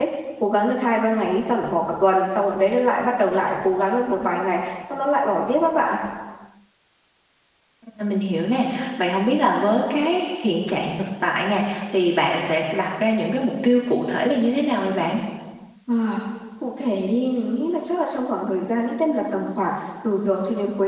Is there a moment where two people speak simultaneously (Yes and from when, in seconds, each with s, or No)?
No